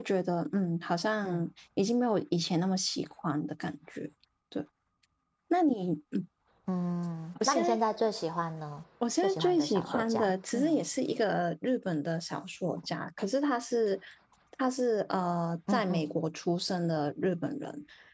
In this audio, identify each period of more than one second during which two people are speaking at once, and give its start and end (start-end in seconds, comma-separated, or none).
9.2-10.8